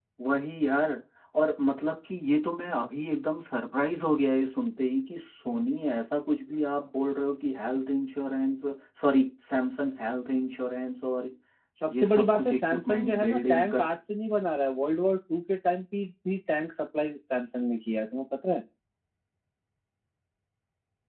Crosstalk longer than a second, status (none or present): present